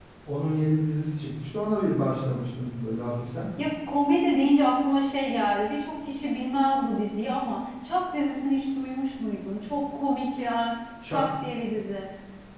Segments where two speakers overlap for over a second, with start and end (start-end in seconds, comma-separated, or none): none